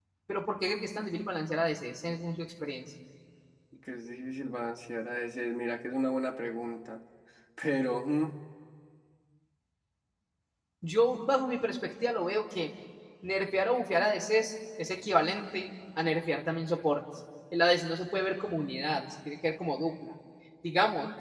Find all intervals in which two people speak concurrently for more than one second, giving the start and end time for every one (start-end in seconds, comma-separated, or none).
none